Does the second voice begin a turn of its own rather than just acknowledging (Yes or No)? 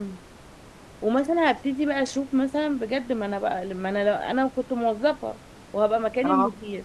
No